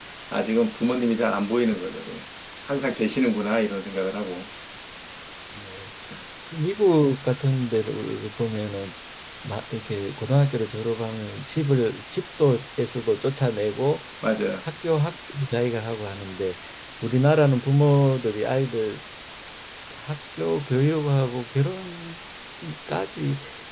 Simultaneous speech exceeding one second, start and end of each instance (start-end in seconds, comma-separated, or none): none